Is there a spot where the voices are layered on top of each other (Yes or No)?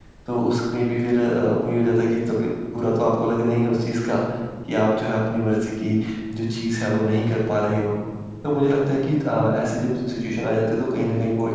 No